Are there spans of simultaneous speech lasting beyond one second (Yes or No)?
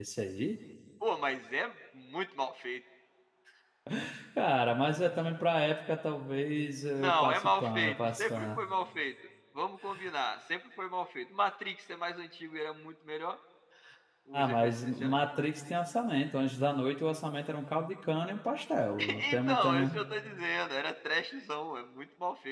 Yes